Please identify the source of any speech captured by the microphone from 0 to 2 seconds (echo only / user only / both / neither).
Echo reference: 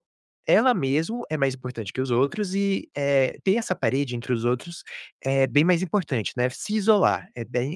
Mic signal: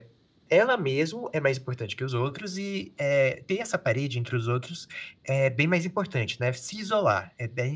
echo only